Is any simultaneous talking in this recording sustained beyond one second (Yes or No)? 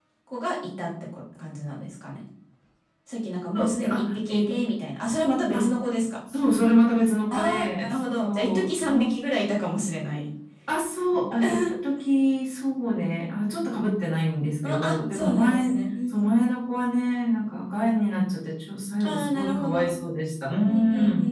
Yes